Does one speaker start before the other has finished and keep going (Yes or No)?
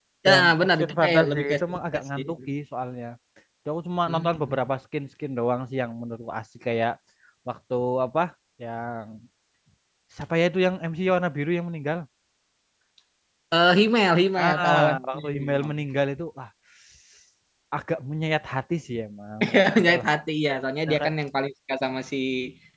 Yes